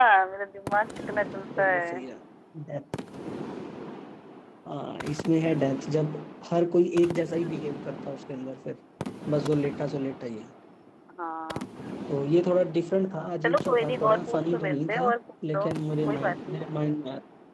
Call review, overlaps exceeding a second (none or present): present